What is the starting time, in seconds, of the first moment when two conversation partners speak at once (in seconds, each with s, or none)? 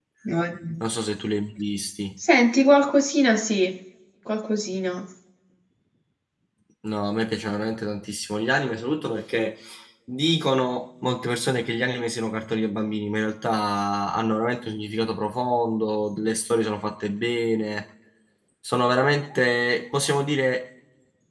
none